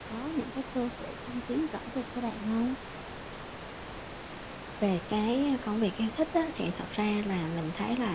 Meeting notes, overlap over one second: none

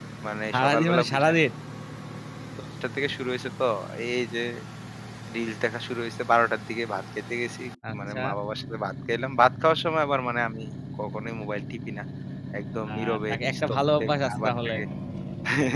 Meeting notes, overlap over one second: present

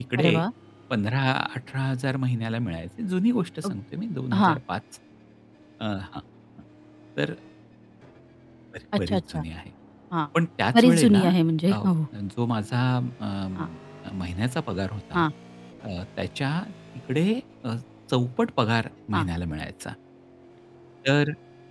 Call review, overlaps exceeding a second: none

